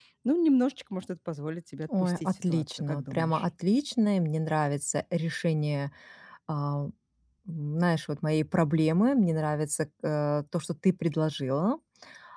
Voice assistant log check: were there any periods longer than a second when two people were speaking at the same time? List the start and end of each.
2.0-3.4

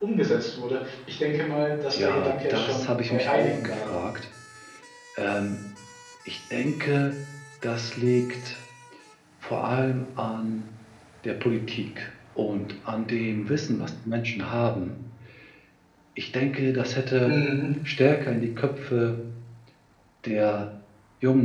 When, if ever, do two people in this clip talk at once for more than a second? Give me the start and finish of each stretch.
1.9-4.0

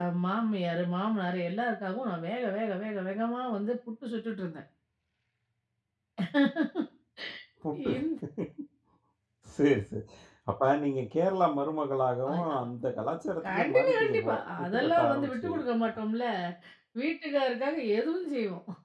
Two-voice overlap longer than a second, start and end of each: 13.4-16.0

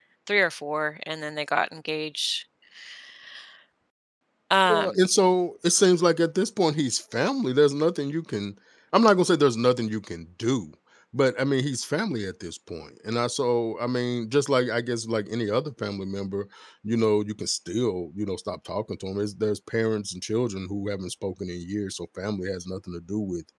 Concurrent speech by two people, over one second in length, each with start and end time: none

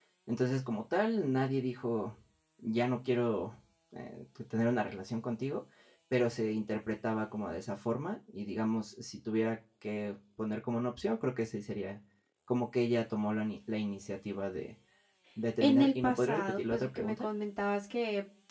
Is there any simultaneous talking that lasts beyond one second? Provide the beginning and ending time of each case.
15.6-17.2

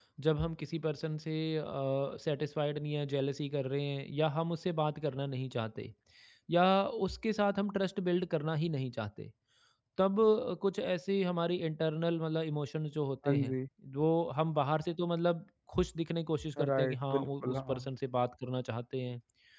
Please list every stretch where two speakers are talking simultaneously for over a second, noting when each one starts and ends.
16.6-17.9

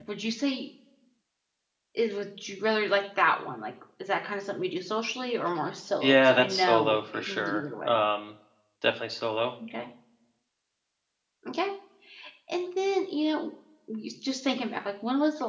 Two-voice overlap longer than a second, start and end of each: 6.0-8.0

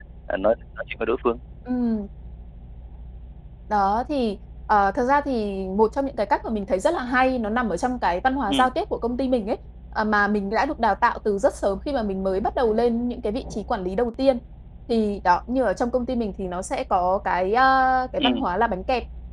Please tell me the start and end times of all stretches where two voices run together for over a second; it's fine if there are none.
none

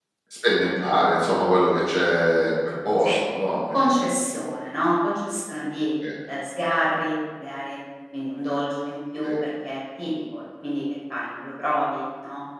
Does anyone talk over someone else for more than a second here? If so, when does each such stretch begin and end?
none

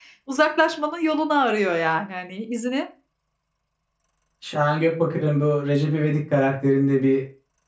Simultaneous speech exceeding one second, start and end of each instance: none

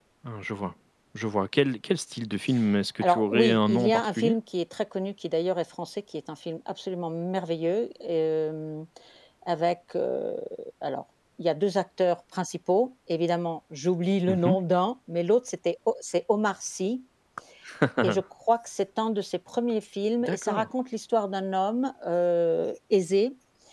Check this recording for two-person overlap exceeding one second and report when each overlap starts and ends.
3.0-4.3

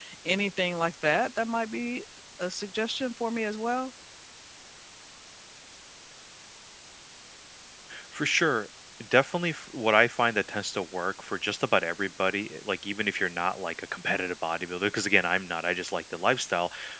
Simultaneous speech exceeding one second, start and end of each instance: none

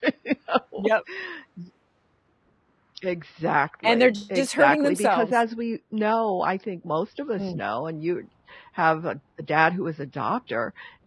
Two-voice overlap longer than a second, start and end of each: 3.8-5.3

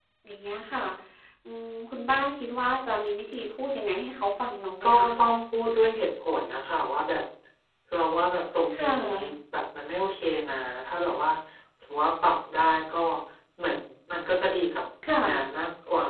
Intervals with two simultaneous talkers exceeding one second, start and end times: none

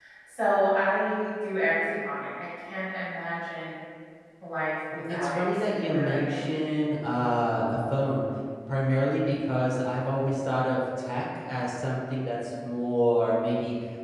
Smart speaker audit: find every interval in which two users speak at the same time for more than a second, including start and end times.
4.9-6.5

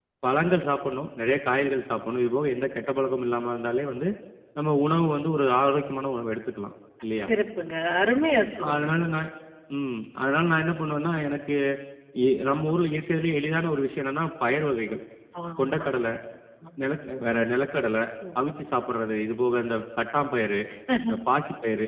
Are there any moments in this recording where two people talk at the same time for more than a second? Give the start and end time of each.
none

